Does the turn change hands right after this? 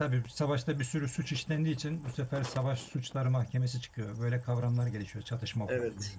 No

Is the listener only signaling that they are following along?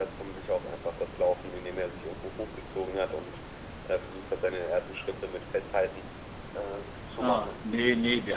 No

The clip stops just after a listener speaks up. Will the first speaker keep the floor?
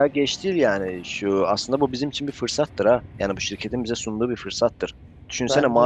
Yes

